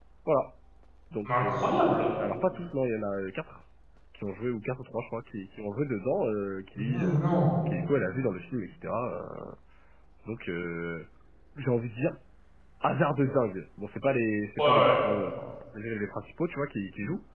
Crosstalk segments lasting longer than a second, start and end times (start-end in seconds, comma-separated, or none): none